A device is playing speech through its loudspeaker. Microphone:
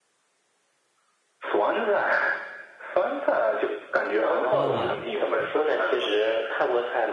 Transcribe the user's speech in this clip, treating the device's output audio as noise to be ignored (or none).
啊，了解了。